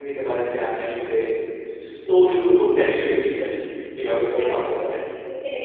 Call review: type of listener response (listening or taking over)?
taking over